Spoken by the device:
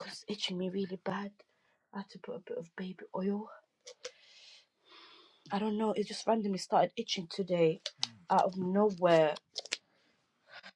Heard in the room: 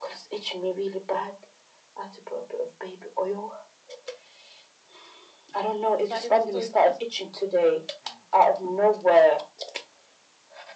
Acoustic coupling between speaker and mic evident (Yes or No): Yes